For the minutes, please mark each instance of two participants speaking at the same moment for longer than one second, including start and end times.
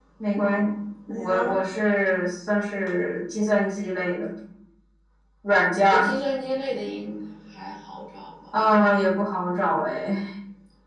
none

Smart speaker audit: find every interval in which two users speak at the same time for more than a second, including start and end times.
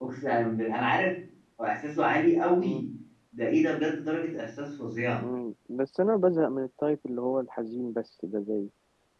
none

